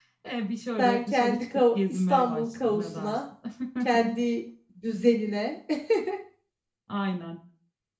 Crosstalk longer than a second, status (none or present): present